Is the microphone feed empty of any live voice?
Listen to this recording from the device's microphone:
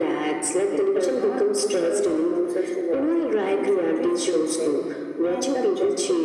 Yes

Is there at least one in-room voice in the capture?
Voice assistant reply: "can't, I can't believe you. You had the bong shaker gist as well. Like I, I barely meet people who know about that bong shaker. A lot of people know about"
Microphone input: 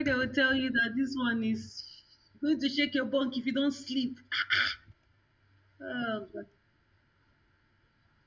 Yes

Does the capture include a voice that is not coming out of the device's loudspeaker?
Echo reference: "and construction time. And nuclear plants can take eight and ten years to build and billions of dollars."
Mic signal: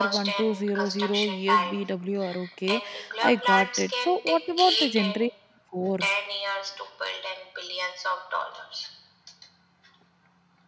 Yes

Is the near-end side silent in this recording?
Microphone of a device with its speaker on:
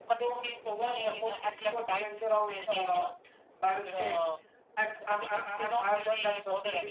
Yes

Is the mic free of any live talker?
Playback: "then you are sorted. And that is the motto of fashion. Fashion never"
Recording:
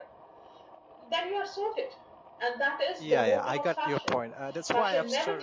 No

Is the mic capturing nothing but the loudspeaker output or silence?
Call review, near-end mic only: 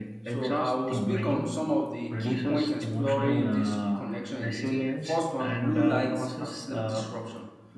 No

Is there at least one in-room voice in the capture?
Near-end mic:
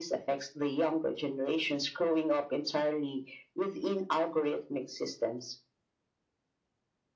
No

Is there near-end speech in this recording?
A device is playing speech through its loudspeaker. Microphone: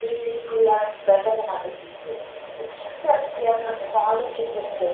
No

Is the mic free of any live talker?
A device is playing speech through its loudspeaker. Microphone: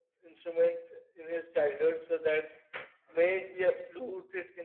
Yes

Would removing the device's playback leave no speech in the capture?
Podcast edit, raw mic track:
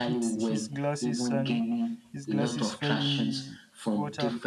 No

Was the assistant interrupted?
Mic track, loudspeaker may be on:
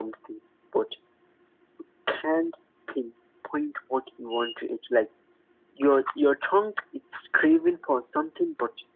No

